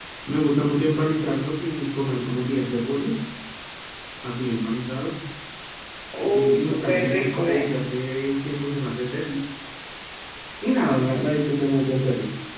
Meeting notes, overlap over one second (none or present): present